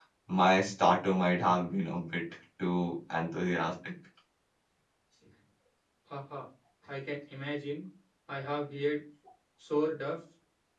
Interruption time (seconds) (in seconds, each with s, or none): none